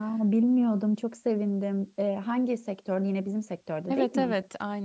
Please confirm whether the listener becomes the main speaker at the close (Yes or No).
Yes